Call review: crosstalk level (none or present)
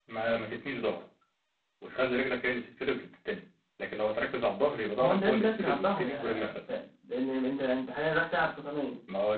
present